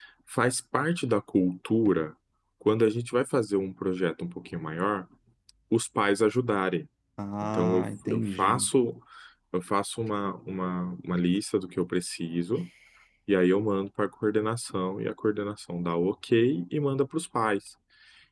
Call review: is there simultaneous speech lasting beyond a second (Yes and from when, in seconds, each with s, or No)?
Yes, from 7.4 s